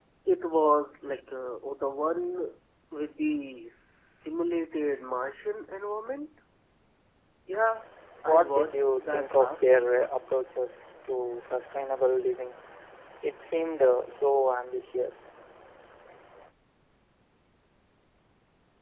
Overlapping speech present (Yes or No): Yes